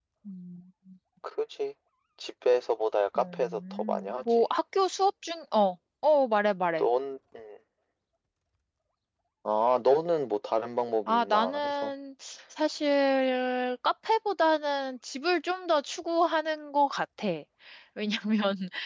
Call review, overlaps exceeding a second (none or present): present